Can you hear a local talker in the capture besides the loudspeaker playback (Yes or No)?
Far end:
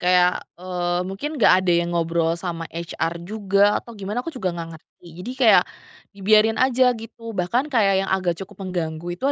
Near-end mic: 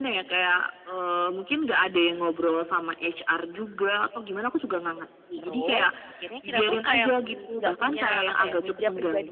Yes